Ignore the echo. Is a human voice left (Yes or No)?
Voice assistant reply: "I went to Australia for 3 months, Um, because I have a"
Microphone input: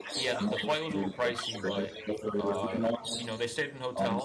Yes